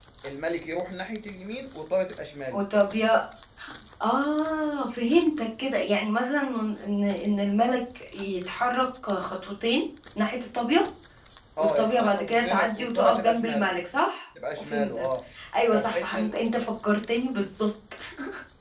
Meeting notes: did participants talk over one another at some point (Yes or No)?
Yes